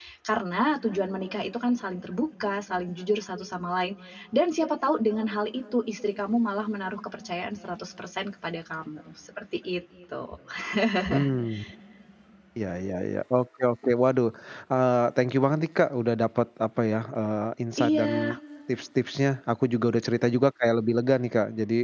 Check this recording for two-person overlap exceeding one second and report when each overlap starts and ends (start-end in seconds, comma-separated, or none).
none